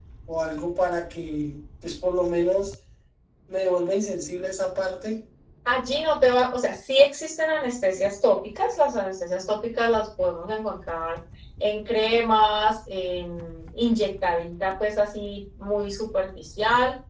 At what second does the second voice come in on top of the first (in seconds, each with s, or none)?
none